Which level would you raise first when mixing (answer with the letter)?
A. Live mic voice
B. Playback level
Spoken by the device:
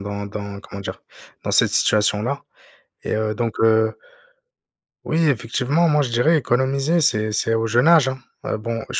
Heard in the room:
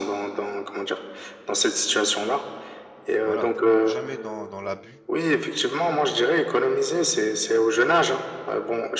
A